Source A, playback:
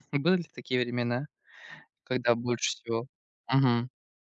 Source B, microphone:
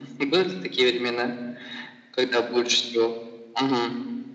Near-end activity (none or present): none